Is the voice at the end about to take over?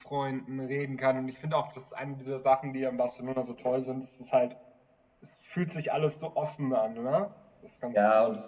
Yes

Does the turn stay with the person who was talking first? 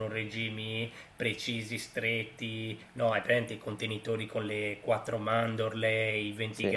Yes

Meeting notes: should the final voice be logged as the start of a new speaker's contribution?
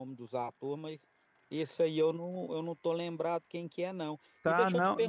Yes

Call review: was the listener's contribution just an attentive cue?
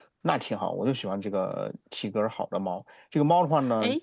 Yes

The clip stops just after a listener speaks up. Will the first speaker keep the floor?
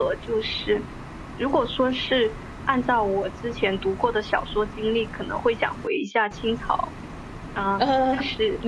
No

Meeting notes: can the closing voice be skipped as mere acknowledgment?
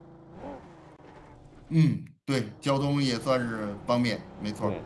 No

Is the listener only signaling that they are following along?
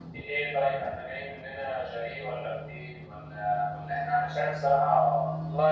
No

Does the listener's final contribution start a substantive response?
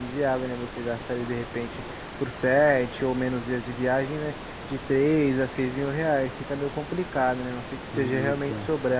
No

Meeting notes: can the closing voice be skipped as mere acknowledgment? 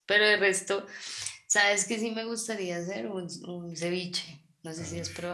No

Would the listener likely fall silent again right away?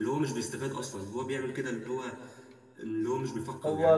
No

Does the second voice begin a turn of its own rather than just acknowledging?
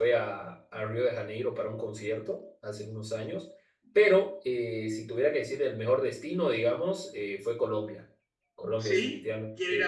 Yes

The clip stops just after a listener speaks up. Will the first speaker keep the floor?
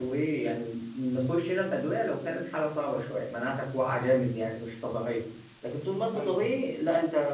Yes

